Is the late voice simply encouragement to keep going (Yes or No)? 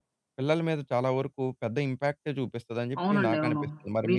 No